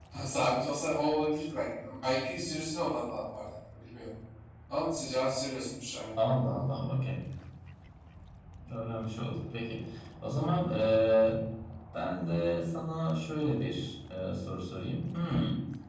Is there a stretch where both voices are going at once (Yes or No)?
No